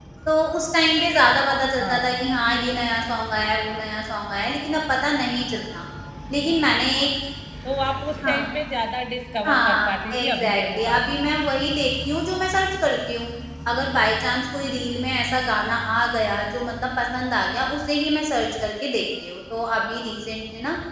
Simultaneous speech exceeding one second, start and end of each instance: 9.4-11.2

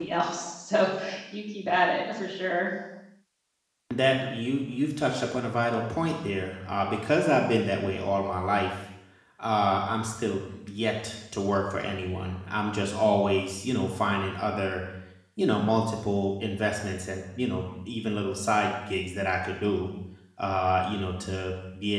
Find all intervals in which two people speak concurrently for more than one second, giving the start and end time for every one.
none

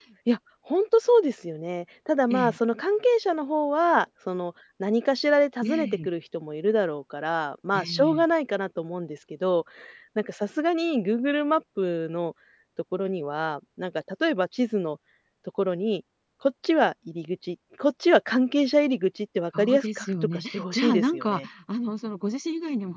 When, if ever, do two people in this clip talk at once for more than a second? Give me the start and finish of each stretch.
19.6-21.4

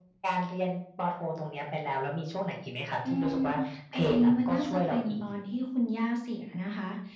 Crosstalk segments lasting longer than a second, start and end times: 3.9-5.2

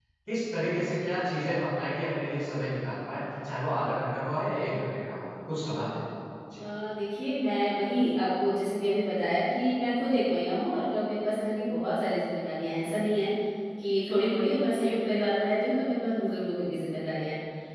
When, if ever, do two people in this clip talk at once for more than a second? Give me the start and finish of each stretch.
none

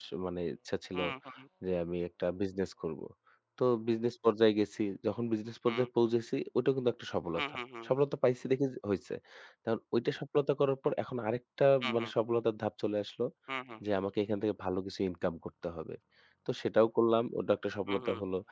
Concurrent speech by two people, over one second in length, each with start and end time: none

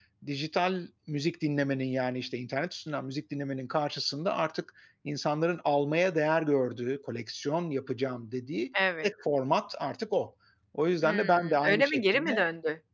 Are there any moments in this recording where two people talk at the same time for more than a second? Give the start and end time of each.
11.0-12.3

